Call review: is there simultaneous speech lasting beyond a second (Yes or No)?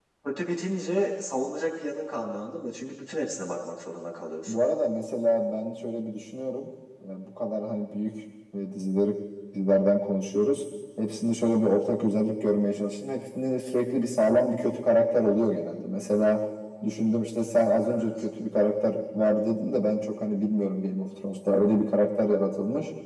No